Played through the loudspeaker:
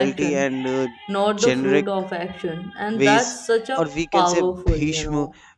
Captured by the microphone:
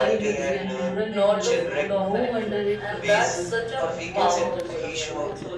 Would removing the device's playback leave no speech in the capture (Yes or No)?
No